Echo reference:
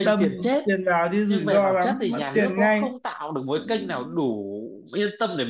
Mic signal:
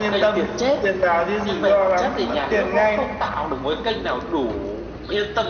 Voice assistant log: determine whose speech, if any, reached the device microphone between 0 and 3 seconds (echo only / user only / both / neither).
echo only